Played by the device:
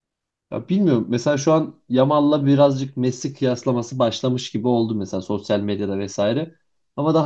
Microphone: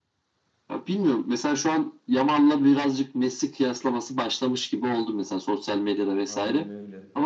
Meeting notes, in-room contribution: present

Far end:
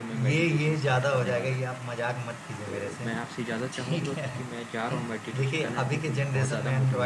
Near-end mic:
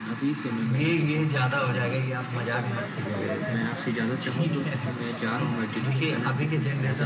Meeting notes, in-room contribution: present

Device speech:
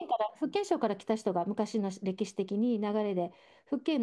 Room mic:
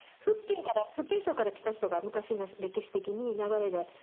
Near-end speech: none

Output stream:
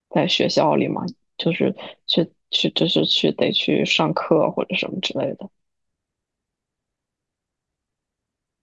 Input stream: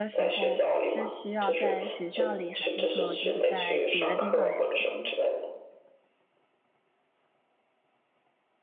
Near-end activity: present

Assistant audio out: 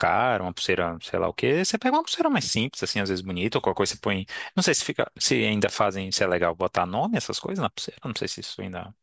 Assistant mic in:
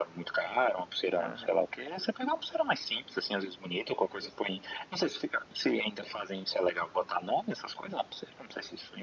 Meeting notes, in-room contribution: present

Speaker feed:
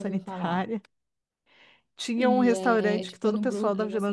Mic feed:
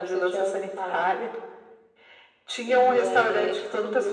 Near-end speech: none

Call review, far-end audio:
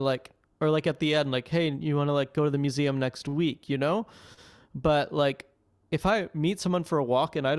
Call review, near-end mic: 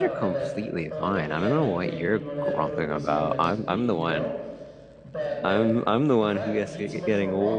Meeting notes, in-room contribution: present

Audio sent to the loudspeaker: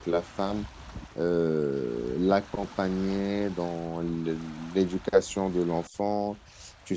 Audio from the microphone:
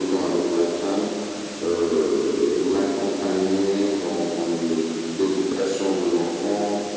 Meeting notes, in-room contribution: none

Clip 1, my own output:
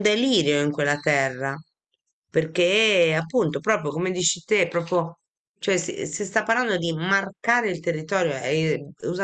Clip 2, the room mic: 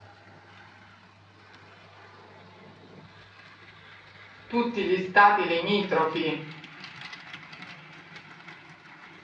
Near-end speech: present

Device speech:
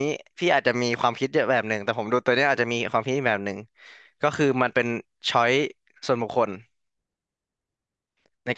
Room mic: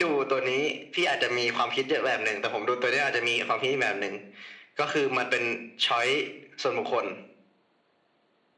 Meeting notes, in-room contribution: none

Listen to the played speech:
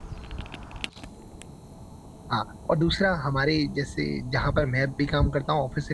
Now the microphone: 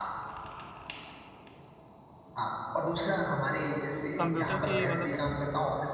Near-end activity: present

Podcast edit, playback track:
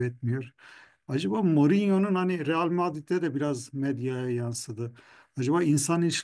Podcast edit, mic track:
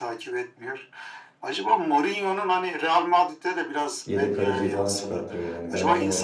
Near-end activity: present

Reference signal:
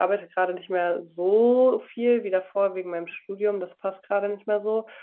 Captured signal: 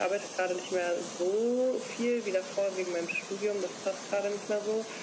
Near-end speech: none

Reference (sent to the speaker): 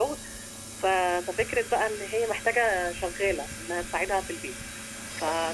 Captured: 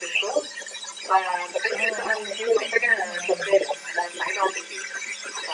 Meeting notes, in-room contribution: present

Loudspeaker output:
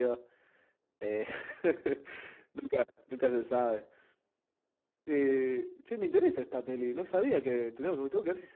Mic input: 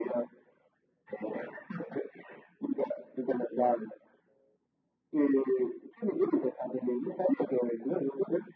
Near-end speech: none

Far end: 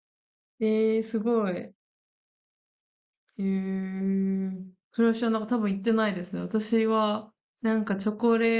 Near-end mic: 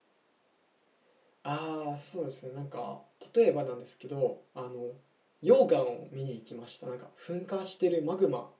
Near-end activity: present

